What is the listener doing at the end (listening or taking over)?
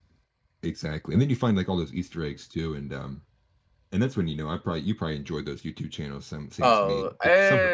taking over